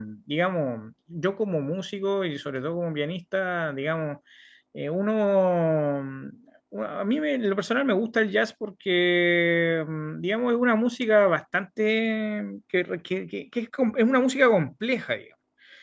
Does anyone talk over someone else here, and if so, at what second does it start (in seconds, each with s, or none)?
none